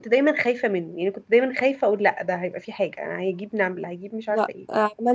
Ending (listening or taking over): taking over